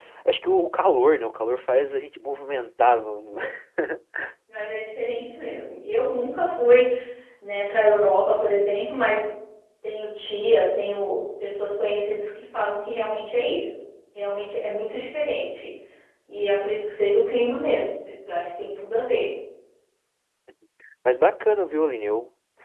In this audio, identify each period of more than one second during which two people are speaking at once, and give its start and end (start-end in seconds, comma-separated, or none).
none